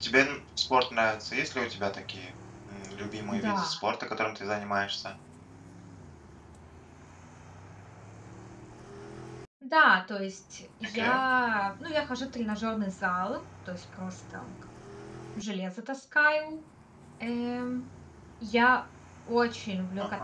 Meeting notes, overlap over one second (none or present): none